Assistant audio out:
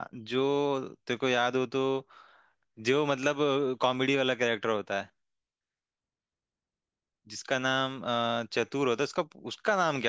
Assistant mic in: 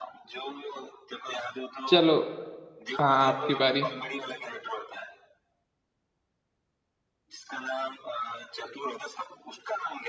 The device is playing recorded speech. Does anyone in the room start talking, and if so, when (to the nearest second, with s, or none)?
2 s